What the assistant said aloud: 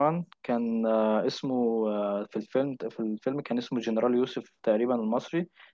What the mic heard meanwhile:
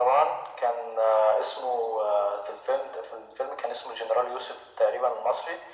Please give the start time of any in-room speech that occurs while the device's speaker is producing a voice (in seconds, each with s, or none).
none